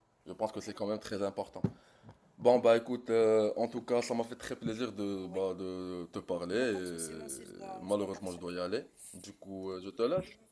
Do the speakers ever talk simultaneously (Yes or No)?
Yes